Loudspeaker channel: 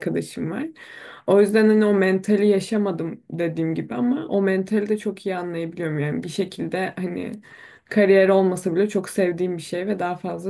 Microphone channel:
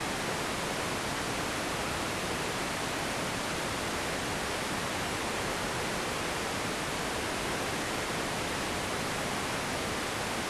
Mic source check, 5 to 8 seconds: neither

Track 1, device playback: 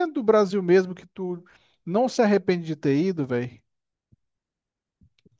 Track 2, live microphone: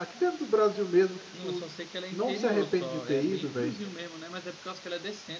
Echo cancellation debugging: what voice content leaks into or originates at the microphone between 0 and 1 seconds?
echo only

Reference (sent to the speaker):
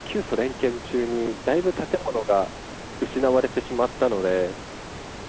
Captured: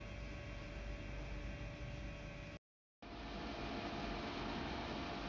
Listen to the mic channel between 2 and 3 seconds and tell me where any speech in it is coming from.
neither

